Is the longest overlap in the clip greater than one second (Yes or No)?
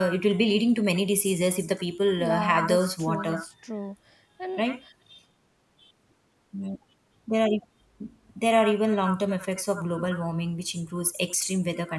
Yes